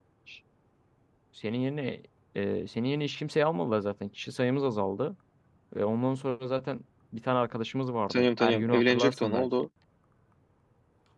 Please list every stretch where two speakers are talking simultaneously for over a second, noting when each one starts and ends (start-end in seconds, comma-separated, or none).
8.1-9.5